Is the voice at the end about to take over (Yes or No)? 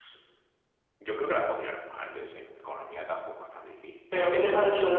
Yes